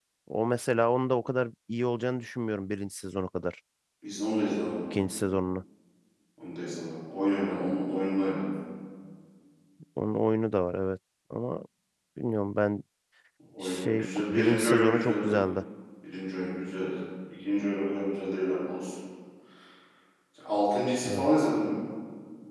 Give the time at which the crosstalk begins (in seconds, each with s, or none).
13.6 s